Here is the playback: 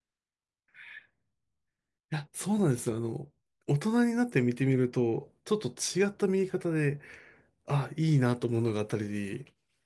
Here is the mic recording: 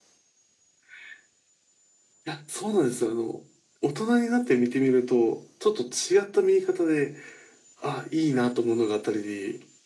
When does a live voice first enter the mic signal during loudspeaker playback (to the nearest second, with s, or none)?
none